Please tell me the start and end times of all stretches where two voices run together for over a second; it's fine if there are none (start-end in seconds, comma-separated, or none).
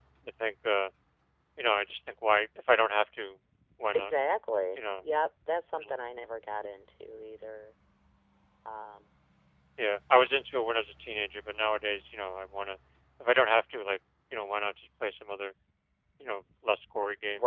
none